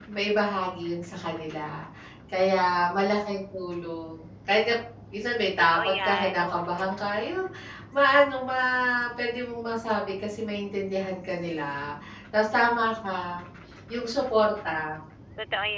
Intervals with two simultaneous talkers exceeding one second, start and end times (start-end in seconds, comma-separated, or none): 5.6-6.9